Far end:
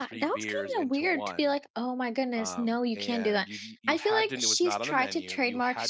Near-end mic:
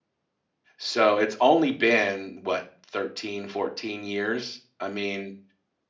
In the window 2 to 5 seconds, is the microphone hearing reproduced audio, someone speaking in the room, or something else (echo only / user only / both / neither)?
user only